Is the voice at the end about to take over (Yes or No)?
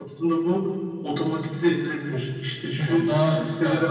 No